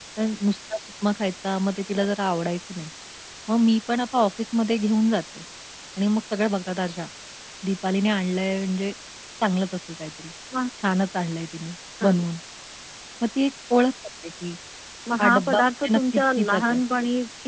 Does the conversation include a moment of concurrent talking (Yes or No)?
Yes